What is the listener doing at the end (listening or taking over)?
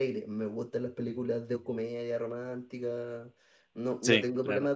listening